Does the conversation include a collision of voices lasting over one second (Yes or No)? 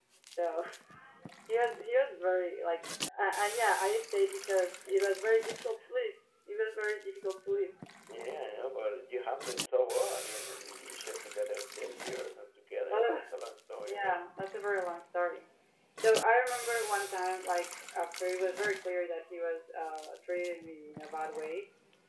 No